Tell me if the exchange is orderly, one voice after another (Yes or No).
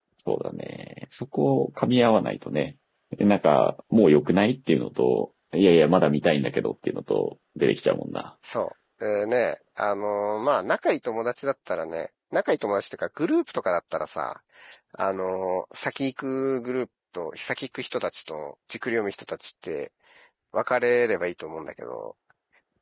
Yes